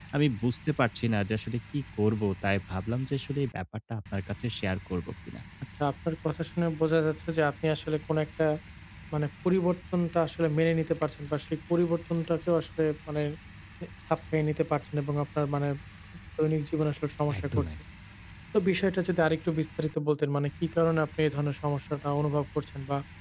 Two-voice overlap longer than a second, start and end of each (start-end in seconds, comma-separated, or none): none